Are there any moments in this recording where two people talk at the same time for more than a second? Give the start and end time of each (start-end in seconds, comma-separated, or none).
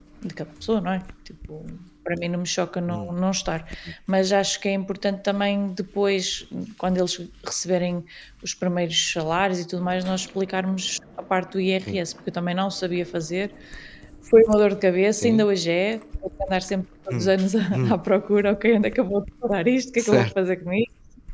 none